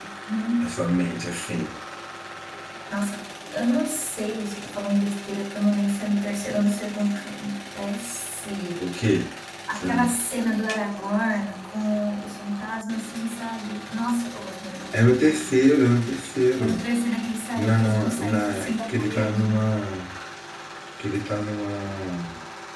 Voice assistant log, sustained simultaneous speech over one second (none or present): present